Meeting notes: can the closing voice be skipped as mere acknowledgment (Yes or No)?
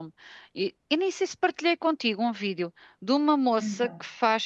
Yes